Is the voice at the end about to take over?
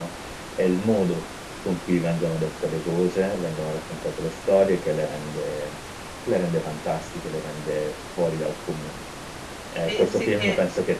No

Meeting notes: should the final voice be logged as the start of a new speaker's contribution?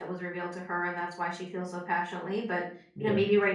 No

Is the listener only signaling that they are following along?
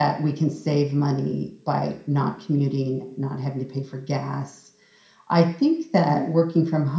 Yes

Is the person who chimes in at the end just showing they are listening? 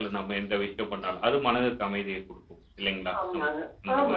No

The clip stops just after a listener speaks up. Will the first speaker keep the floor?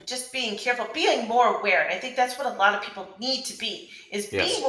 Yes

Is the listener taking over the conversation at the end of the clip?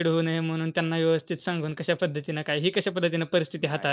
Yes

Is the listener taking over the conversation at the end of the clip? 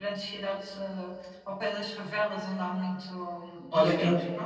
Yes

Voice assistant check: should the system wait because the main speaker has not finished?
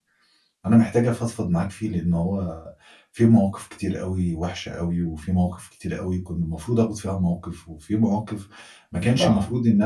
Yes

